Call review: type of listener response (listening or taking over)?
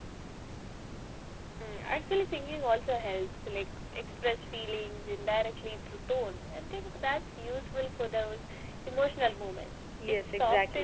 taking over